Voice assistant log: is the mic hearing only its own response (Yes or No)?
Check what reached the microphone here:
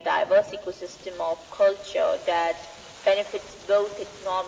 Yes